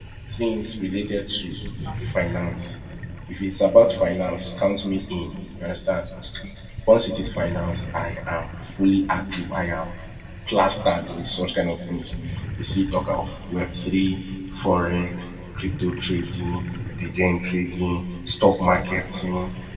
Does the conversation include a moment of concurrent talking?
No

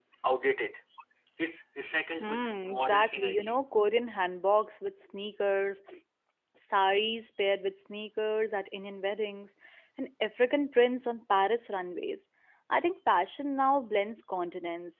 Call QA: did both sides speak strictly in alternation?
No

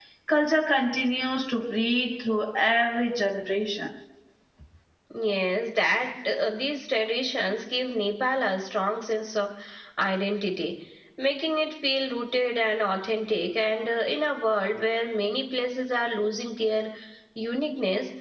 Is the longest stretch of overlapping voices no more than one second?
Yes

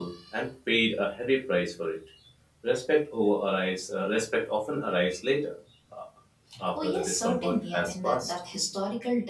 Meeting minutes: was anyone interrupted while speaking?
Yes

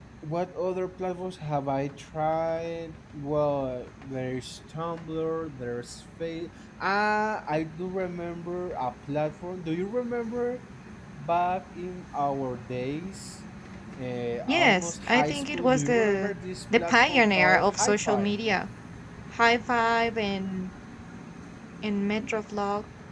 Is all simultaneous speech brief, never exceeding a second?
No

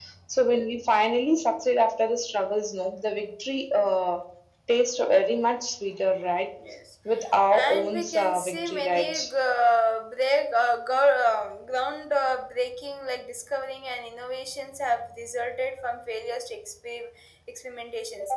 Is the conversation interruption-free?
No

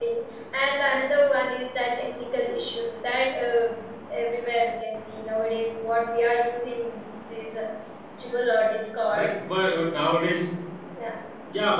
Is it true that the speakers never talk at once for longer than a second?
Yes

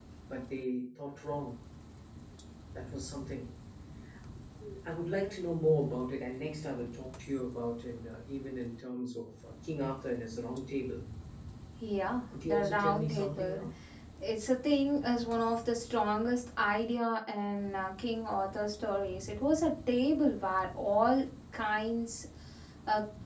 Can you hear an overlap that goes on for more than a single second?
Yes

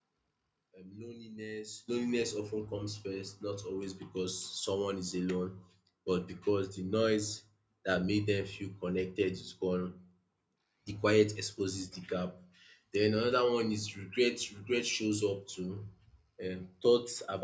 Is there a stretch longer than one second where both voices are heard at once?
No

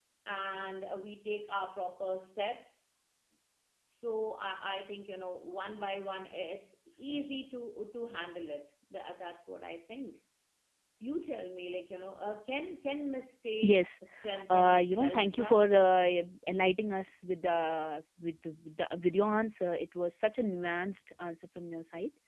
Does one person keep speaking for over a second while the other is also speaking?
Yes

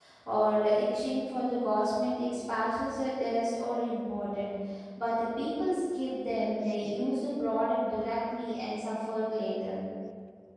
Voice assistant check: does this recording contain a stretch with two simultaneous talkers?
No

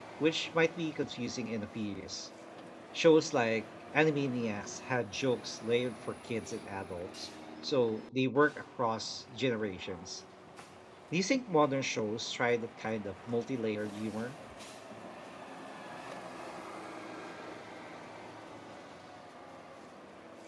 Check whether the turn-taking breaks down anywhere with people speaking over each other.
No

